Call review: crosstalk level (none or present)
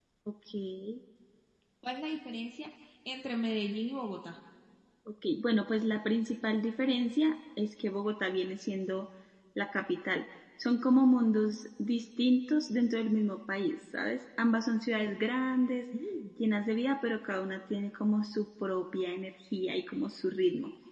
none